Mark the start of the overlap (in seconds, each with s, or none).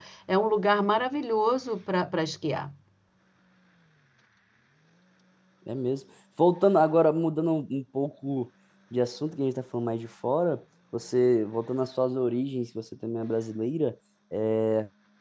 none